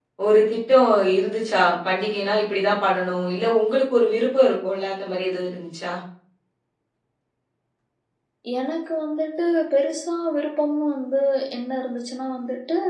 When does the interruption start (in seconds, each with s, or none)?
none